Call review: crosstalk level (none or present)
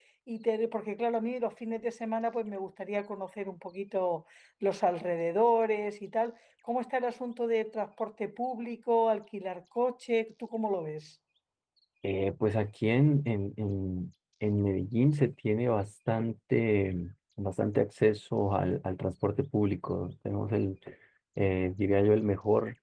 none